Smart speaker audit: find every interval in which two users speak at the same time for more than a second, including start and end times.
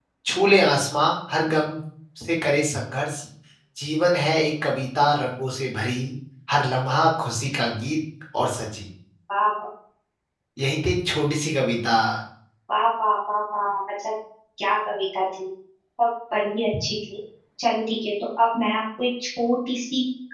none

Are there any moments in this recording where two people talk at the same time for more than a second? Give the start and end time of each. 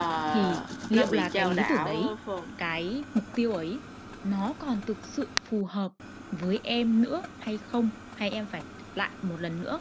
0.9-2.1

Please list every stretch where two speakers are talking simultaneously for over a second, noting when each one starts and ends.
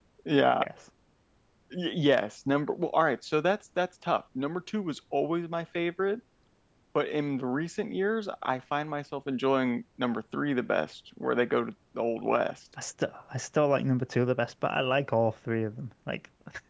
none

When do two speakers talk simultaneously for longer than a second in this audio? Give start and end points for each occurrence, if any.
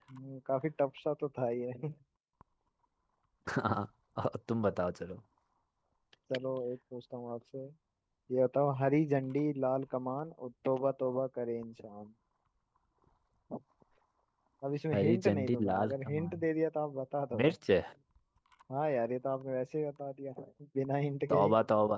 14.9-16.4

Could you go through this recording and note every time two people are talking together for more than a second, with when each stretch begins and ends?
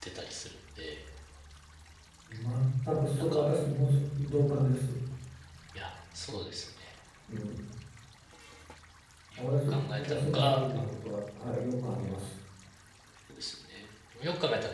9.4-11.1

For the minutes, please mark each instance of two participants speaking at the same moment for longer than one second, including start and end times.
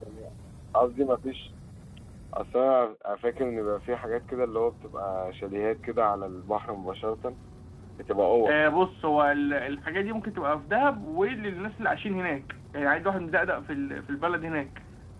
none

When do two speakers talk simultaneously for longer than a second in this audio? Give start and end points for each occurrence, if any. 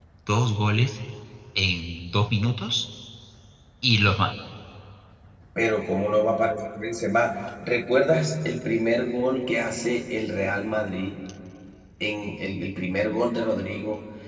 none

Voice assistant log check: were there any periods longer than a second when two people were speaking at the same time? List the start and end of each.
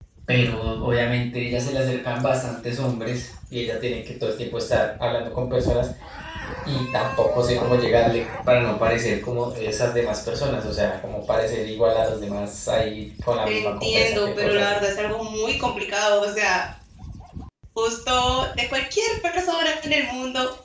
13.4-14.8

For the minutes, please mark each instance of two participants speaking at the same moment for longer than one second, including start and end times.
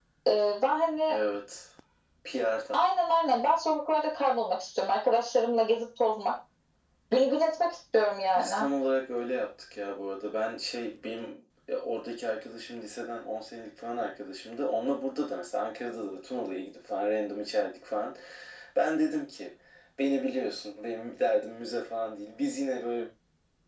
none

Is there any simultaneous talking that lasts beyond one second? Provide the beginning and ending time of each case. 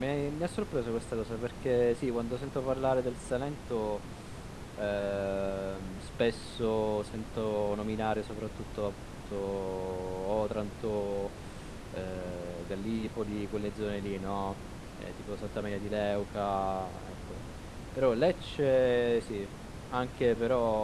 none

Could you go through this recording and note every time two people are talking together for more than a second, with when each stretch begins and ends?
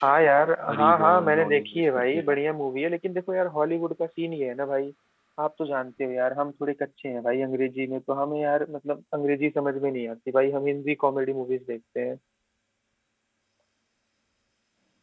0.7-2.4

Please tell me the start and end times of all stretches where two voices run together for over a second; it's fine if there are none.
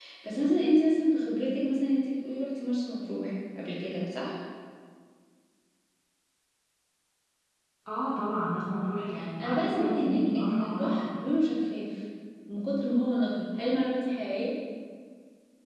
9.4-11.0

